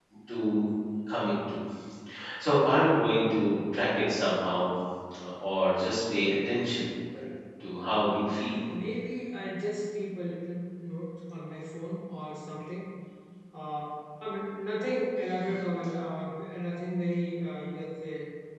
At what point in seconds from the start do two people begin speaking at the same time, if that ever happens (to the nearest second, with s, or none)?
none